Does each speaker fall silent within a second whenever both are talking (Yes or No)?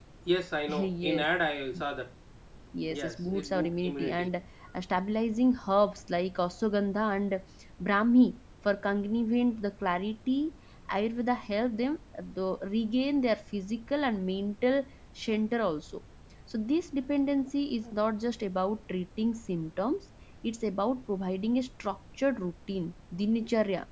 No